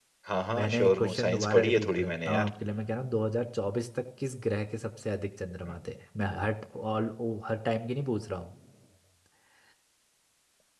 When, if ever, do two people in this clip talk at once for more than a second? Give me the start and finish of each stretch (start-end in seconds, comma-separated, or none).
0.6-2.5